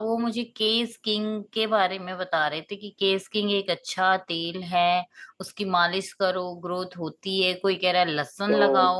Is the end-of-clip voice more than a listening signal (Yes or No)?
Yes